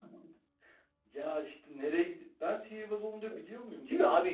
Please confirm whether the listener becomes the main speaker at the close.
Yes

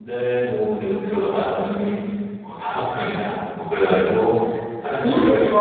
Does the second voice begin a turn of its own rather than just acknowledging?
No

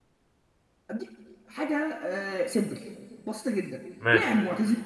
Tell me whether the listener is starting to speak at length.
No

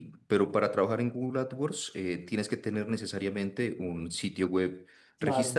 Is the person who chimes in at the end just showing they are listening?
Yes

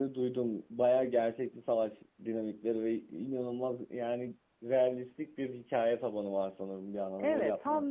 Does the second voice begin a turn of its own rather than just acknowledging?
Yes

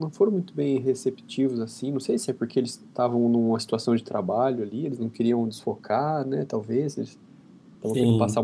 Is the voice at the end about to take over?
No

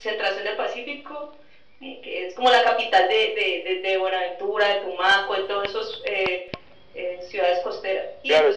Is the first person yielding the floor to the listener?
Yes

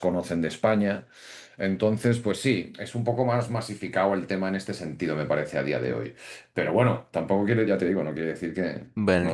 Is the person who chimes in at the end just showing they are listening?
No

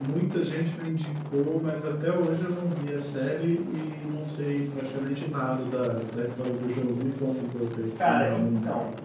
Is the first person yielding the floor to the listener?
Yes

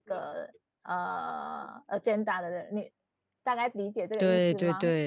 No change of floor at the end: No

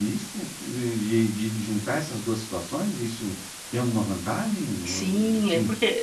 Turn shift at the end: Yes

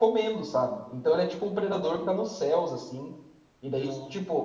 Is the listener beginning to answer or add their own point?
No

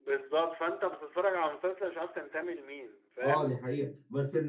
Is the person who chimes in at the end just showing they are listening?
No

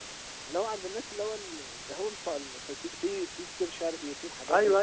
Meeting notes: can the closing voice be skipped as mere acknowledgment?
No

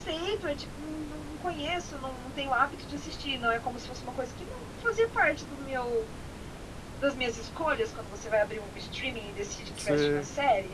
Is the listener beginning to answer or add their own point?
No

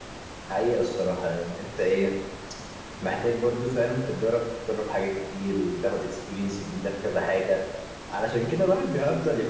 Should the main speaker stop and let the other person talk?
No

